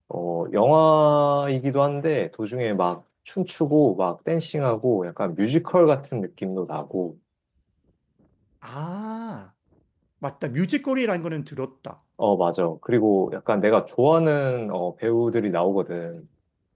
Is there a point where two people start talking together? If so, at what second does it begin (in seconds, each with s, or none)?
none